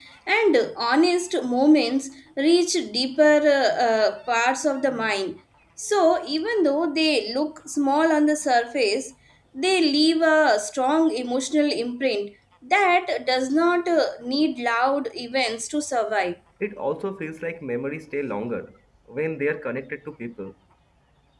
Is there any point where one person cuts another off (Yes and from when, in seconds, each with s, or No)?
No